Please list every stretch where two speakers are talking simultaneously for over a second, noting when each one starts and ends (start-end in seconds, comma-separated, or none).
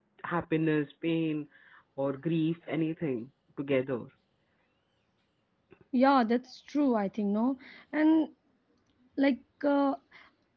none